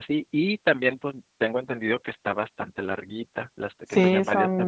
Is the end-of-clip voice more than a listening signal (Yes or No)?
Yes